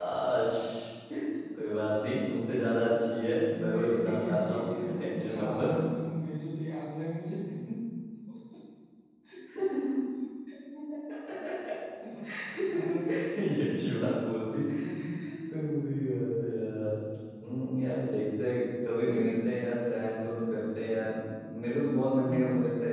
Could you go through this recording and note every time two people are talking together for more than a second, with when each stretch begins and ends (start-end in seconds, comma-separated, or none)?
3.7-5.7